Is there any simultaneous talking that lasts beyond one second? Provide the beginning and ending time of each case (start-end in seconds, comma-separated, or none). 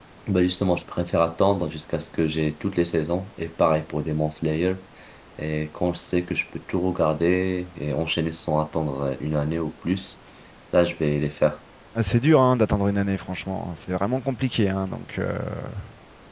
none